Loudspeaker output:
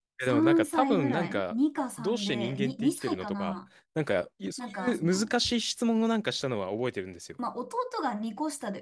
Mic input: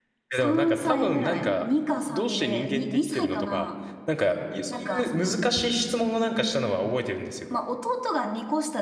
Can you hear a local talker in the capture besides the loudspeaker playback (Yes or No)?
No